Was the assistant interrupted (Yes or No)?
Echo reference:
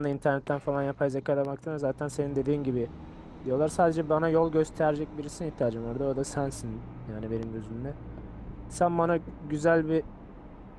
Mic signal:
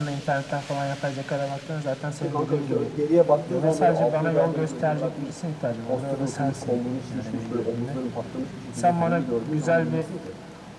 Yes